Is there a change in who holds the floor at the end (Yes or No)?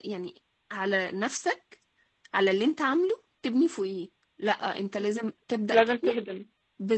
No